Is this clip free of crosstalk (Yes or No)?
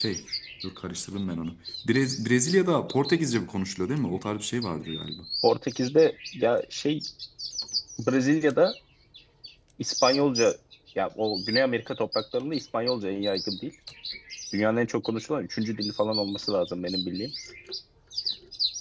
Yes